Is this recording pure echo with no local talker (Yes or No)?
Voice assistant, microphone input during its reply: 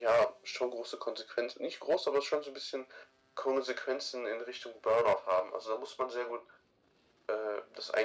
Yes